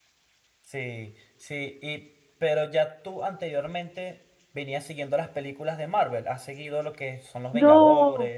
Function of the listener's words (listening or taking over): taking over